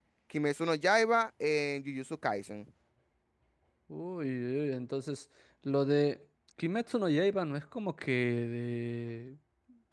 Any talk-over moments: No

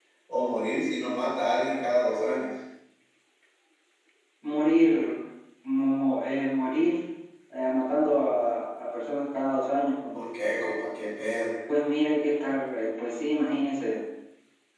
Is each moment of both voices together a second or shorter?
Yes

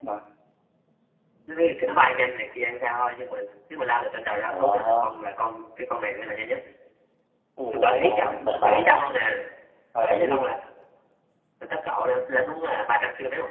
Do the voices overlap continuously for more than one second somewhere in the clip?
Yes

